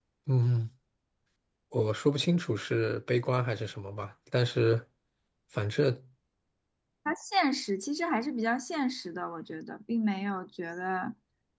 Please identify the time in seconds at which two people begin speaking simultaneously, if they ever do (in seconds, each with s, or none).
none